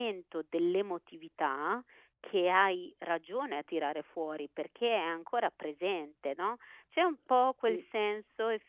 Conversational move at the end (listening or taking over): listening